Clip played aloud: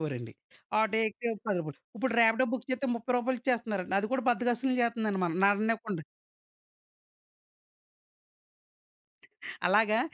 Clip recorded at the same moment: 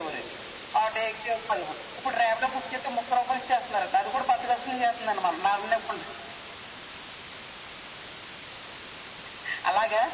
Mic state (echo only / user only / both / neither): echo only